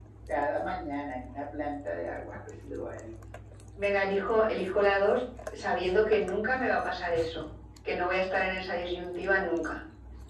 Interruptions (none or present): none